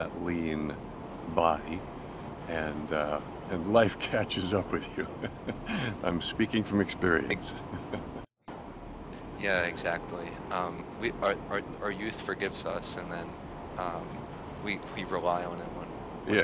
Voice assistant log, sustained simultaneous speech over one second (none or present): none